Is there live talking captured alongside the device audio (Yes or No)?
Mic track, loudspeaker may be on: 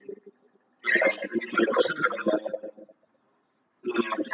No